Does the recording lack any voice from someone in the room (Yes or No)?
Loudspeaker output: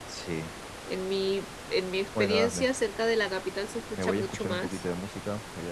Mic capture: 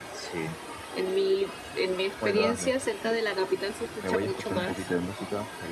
Yes